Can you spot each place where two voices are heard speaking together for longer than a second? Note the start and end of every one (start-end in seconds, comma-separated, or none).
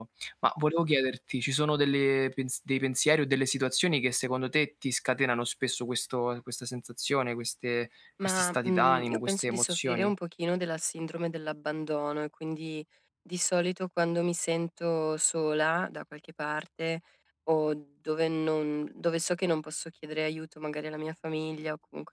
8.3-10.1